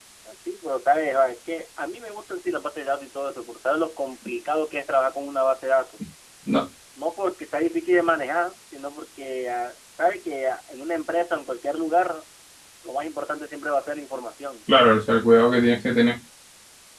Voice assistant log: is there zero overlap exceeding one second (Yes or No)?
Yes